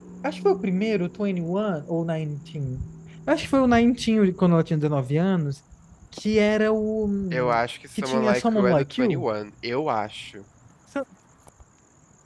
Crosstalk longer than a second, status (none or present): present